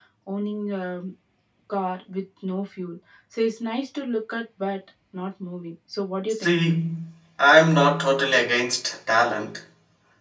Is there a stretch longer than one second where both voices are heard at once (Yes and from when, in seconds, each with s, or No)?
No